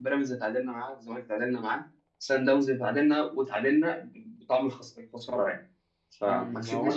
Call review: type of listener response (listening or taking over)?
taking over